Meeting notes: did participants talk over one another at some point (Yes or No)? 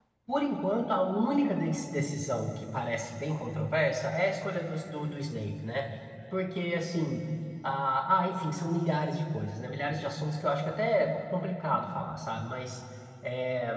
No